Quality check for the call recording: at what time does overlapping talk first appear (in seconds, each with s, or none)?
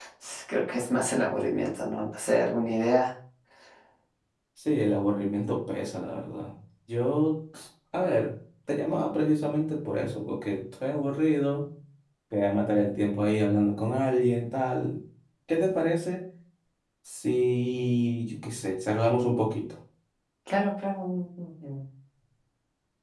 none